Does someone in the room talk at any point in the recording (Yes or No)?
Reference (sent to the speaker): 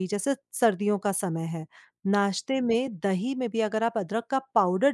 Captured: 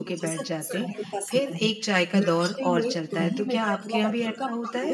Yes